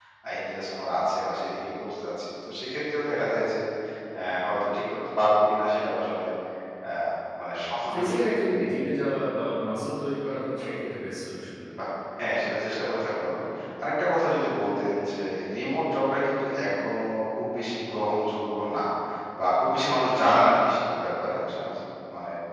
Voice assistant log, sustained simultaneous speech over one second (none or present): none